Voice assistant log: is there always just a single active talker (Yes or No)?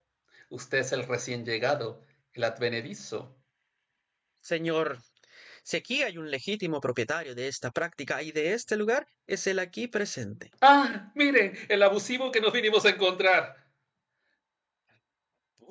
Yes